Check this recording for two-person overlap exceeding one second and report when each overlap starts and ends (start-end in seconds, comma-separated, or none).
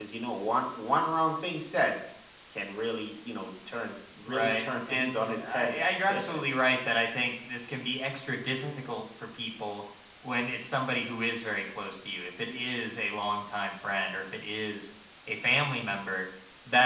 4.2-5.8